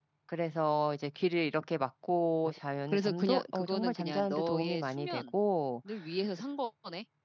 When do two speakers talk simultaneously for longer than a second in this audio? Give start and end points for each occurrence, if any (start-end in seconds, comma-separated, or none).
2.9-5.3